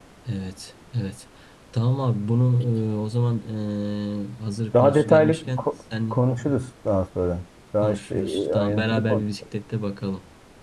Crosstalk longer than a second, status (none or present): present